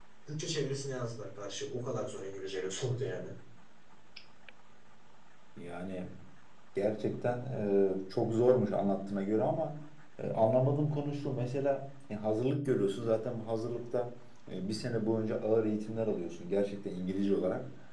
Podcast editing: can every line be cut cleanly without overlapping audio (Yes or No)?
Yes